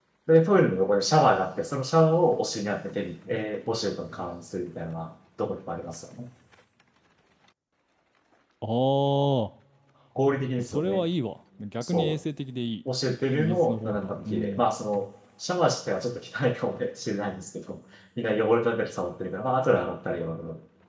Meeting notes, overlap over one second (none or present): present